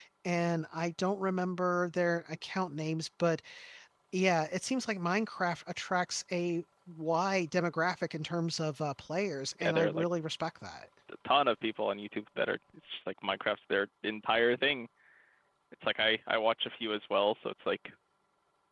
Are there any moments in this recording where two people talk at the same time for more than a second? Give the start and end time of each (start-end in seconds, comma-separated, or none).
none